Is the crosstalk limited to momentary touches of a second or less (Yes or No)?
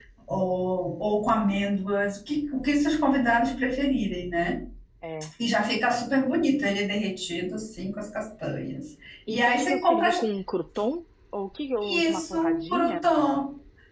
No